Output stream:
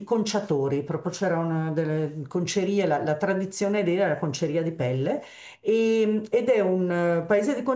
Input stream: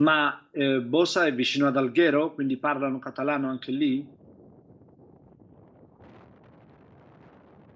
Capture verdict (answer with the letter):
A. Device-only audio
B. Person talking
B